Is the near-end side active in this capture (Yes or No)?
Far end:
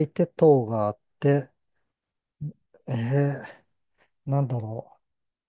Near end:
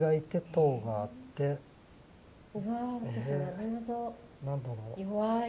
Yes